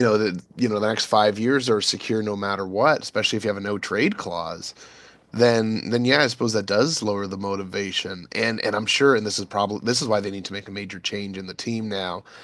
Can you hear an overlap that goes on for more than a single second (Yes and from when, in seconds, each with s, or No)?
No